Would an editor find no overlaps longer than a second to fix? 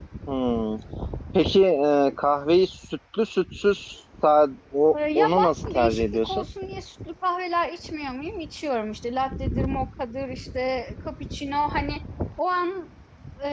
No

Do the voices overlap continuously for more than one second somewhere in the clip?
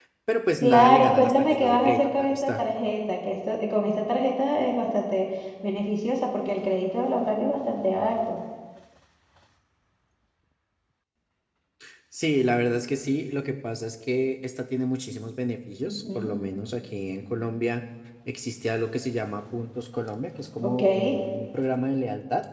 Yes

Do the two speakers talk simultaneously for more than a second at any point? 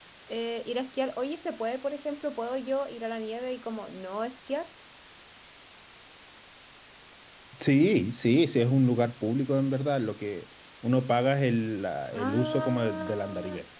Yes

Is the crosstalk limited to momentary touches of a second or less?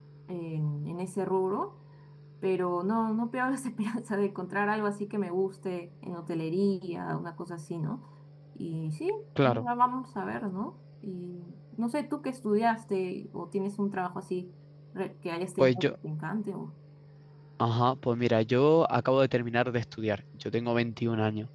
Yes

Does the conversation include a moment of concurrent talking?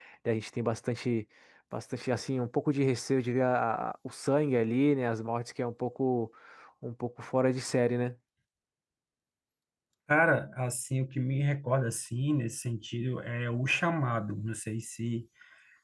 No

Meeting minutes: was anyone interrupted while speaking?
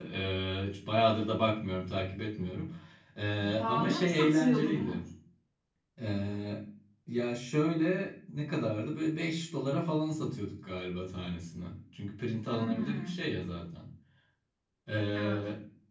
Yes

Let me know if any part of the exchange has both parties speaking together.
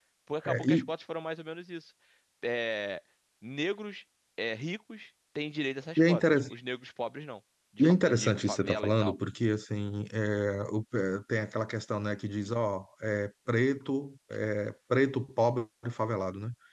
Yes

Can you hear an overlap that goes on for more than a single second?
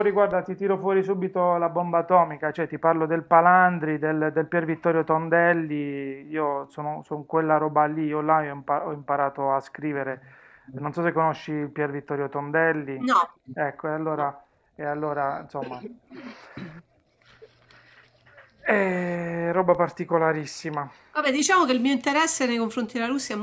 No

